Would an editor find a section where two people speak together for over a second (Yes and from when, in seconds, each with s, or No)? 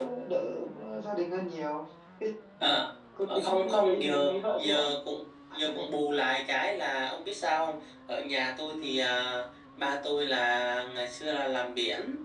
Yes, from 3.4 s